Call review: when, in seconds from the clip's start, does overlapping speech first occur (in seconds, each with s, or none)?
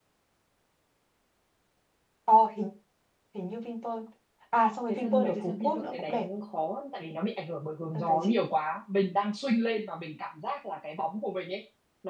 4.9 s